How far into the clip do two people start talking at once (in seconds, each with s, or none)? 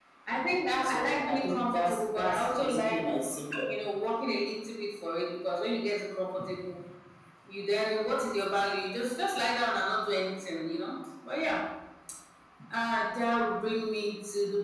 0.8 s